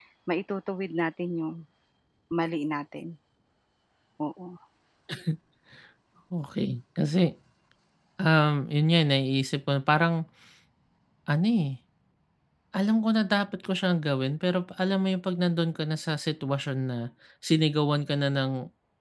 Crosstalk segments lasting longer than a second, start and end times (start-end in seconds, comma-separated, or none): none